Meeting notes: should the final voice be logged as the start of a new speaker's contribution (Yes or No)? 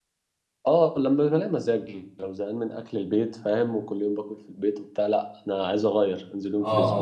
Yes